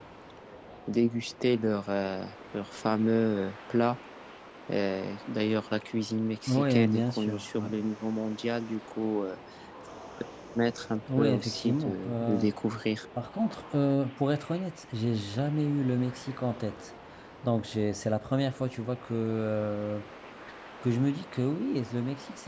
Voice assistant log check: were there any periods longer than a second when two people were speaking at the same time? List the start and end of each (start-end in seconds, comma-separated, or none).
6.5-7.7, 11.1-12.5